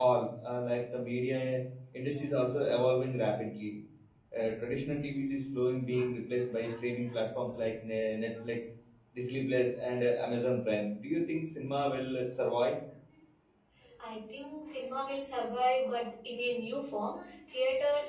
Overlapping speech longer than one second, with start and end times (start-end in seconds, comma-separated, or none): none